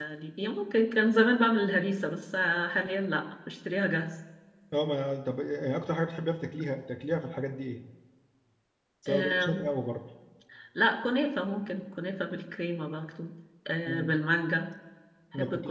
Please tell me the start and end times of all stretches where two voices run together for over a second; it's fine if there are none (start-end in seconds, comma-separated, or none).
none